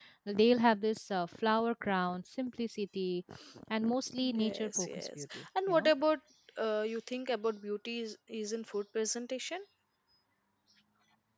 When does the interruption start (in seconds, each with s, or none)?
4.3 s